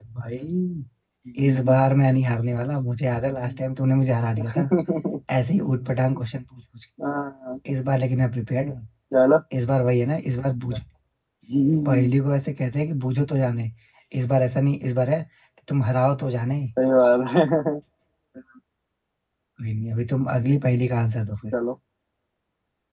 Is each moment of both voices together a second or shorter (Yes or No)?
Yes